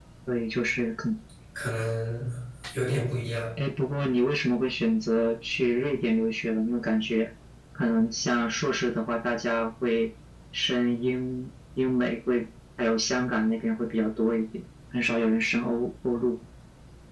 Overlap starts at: none

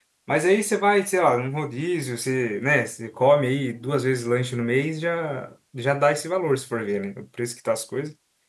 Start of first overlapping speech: none

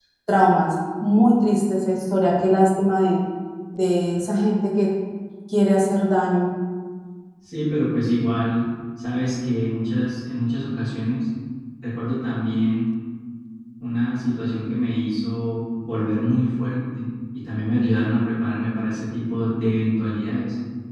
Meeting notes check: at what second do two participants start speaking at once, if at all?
none

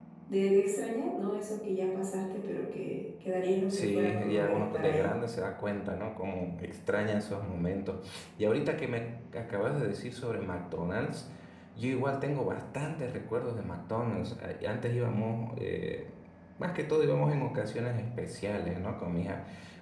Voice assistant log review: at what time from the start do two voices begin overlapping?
4 s

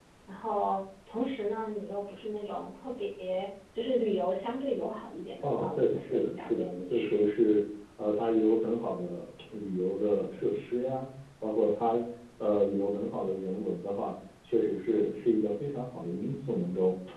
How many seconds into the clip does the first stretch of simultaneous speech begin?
5 s

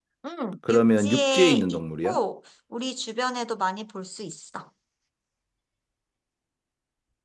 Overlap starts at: 1 s

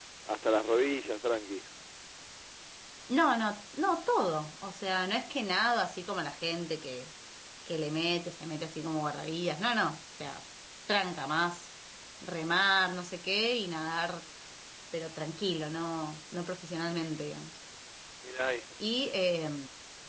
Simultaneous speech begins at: none

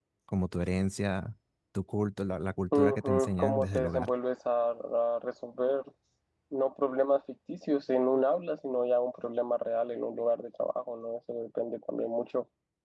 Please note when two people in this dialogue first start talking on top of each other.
3 s

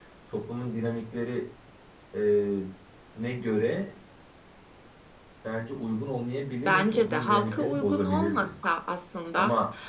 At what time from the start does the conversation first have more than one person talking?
7 s

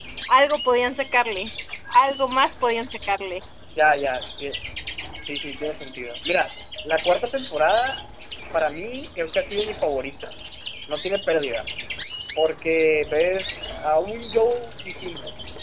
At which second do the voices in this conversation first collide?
none

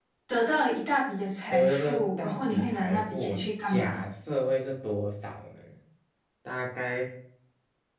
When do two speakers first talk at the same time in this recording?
2 s

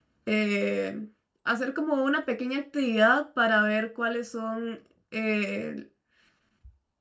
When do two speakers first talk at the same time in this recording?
none

